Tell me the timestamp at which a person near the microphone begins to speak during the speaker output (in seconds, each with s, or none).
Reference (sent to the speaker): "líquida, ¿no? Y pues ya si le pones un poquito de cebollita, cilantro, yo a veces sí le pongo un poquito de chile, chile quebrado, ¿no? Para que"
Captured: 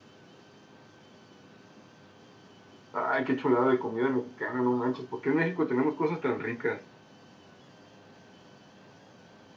2.9 s